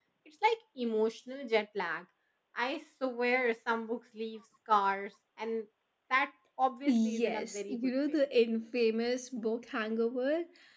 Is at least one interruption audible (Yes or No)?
Yes